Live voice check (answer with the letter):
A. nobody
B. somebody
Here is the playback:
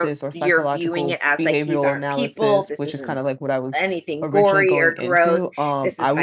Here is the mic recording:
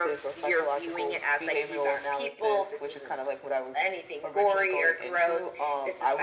A